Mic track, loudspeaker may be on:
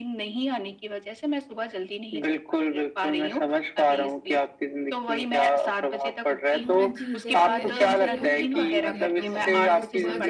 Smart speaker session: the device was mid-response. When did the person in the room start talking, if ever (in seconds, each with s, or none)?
6.6 s